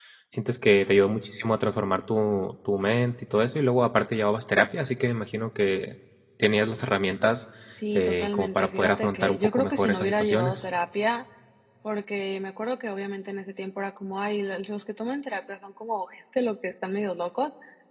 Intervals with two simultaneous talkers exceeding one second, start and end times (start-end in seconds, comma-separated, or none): 8.0-10.6